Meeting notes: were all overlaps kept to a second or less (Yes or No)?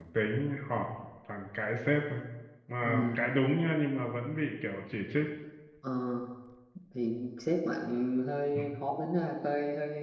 Yes